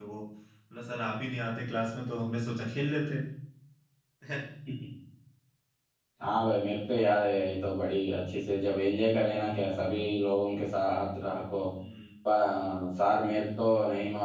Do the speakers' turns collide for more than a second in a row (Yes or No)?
No